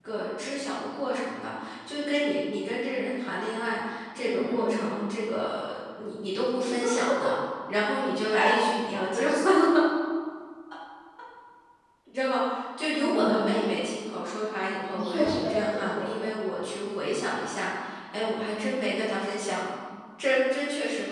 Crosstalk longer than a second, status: present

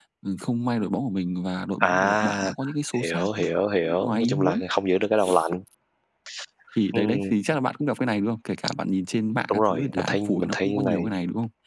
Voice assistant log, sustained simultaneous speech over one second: present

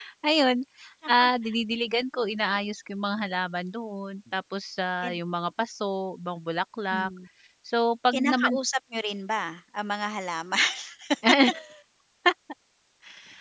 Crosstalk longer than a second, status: none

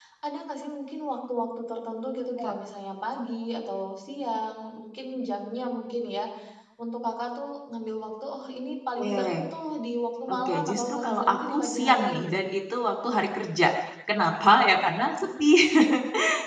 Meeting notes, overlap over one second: present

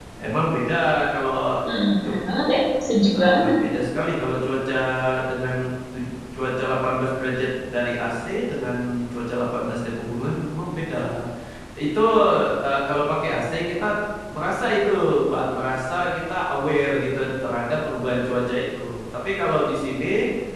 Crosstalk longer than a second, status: none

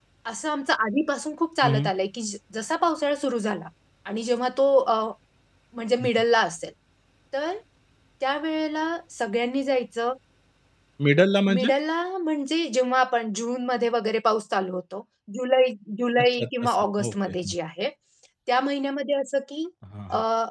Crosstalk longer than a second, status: present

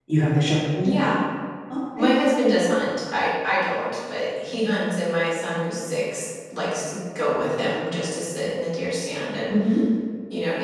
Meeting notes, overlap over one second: none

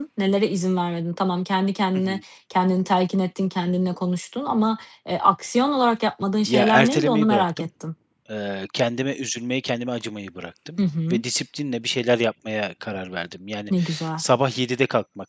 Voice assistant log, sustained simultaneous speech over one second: present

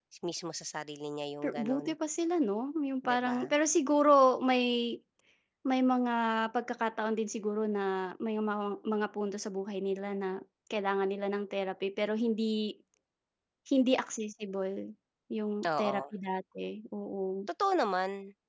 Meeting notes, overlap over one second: none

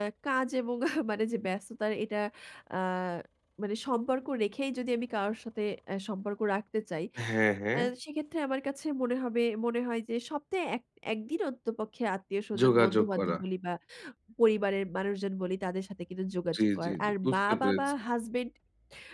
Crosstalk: present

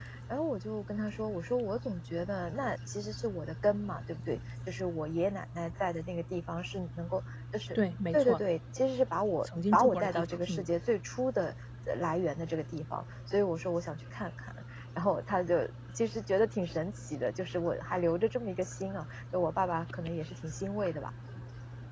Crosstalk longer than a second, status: present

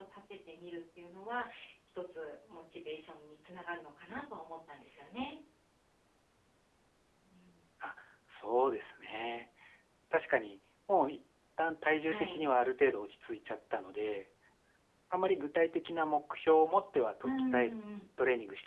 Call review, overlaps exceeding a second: none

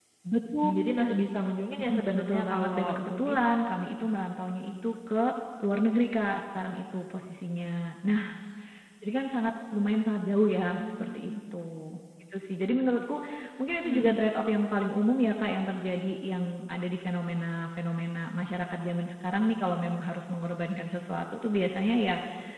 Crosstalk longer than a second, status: present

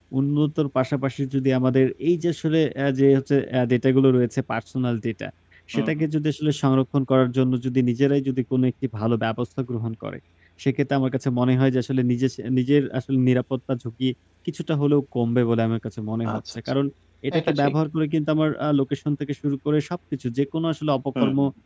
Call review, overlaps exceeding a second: none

